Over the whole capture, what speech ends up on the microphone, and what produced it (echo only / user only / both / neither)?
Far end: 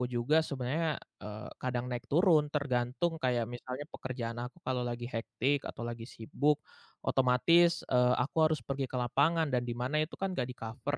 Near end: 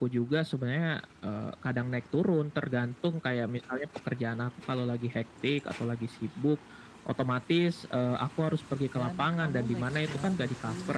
both